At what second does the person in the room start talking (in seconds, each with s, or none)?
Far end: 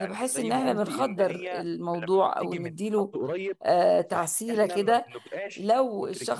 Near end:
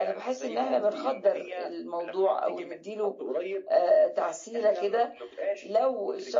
none